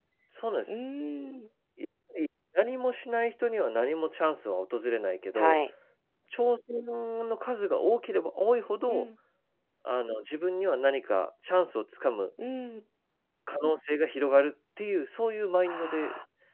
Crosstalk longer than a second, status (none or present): none